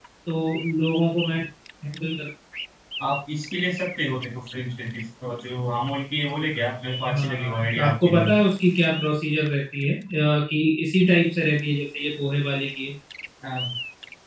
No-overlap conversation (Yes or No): No